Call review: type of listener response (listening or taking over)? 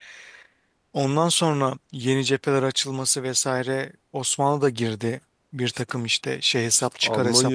taking over